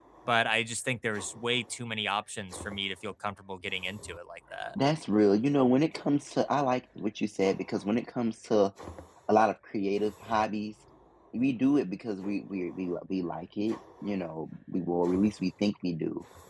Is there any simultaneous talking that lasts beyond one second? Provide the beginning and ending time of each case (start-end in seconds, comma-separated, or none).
none